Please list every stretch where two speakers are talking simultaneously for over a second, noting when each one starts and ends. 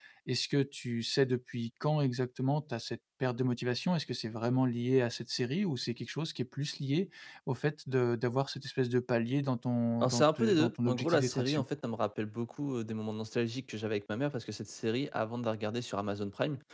10.0-11.6

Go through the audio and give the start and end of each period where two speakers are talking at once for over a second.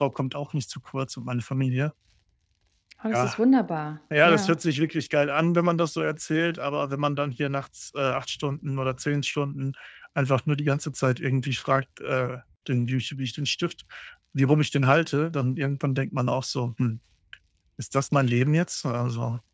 none

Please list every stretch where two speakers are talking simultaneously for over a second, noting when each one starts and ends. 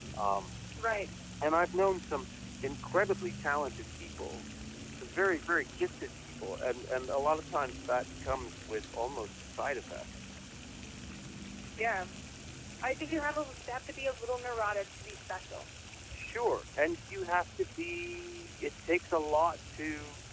none

